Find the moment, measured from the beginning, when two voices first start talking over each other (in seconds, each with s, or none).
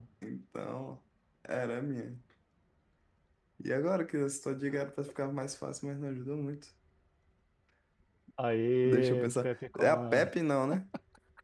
8.8 s